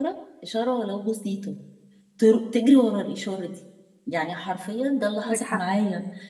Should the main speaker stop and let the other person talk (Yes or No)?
No